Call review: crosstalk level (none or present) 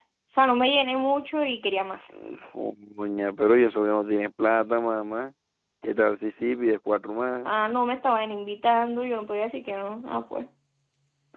none